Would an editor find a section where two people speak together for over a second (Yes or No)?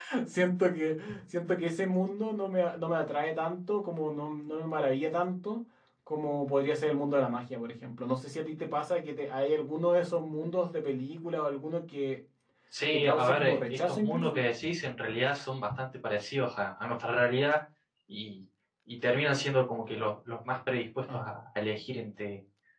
Yes